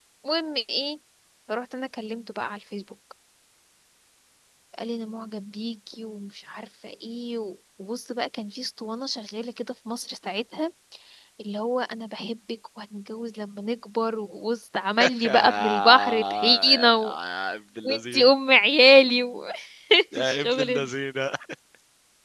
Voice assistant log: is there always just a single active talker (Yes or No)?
No